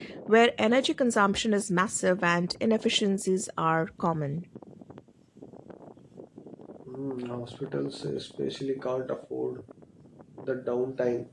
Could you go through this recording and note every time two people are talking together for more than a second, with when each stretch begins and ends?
none

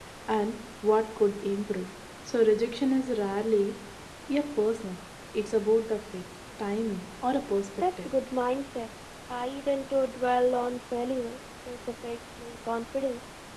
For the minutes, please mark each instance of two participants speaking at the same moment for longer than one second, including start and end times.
none

